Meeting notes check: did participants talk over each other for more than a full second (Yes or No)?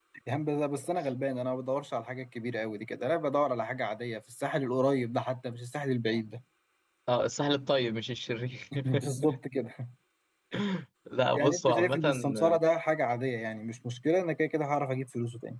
Yes